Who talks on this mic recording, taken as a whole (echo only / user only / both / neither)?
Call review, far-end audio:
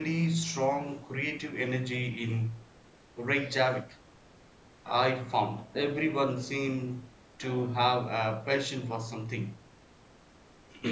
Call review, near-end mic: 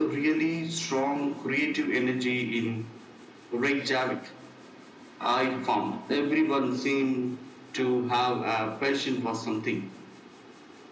echo only